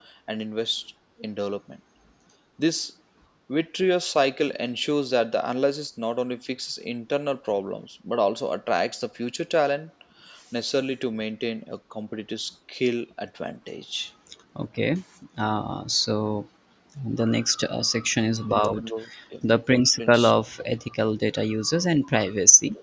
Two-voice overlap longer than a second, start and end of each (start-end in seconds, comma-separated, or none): none